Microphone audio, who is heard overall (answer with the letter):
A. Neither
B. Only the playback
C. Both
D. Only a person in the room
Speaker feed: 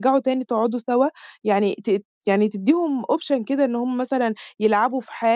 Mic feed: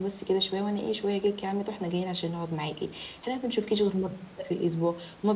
D